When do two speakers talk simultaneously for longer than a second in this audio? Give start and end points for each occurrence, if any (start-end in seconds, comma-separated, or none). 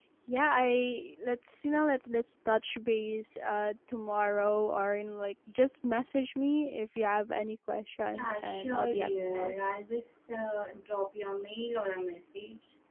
8.2-9.5